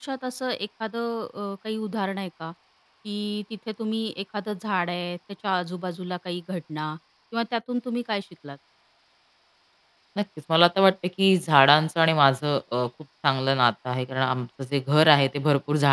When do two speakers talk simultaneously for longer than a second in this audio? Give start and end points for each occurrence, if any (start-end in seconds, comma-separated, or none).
none